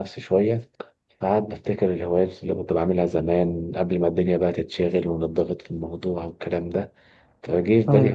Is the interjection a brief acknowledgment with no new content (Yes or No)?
Yes